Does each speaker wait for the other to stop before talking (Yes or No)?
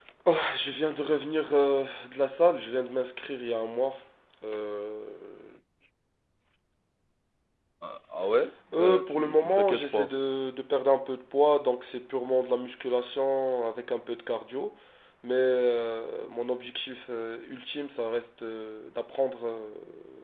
No